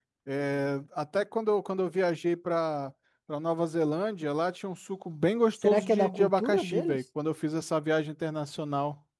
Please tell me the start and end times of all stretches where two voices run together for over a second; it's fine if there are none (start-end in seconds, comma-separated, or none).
5.6-7.0